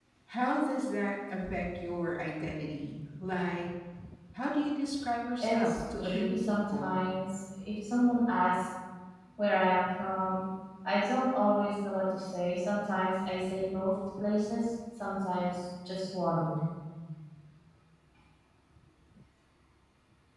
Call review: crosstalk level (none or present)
present